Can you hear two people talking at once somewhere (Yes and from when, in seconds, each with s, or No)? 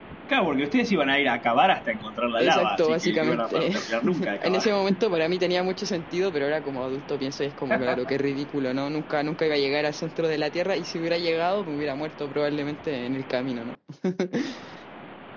Yes, from 2.4 s